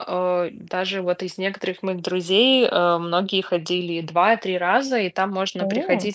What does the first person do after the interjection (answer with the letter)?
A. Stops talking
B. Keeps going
B